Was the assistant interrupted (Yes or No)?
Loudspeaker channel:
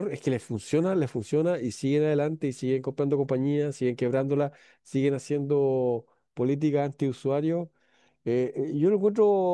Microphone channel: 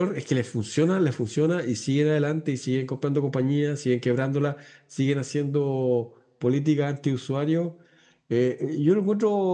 No